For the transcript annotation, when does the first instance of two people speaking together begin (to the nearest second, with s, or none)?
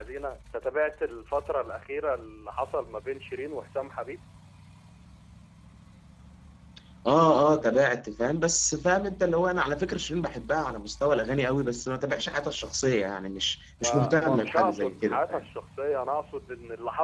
14 s